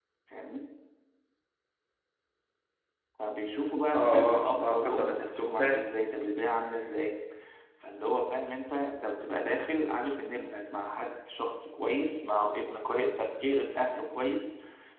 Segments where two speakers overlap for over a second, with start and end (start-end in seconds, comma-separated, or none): 3.9-5.8